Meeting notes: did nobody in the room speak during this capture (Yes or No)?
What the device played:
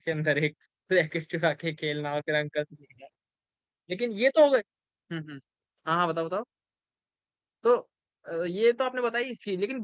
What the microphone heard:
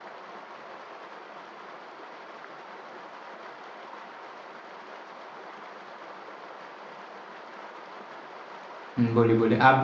No